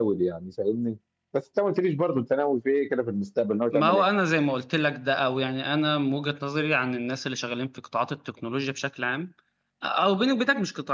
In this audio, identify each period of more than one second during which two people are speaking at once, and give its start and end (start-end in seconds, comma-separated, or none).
none